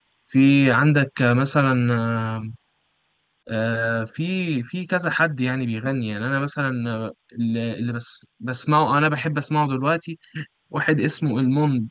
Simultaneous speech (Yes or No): No